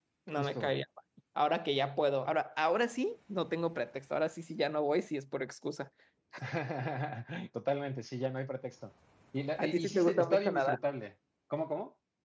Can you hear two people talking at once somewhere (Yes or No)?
Yes